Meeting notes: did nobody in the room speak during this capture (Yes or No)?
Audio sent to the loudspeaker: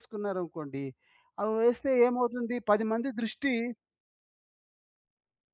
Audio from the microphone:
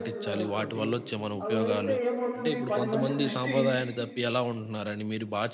No